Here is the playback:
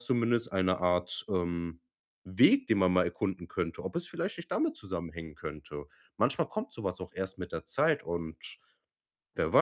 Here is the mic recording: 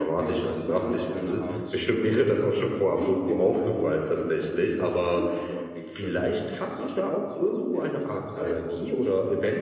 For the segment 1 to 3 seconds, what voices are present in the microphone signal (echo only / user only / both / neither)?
both